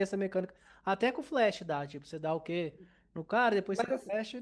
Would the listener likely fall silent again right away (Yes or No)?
Yes